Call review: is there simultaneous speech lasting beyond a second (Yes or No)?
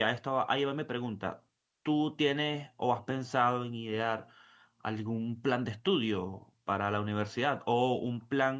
No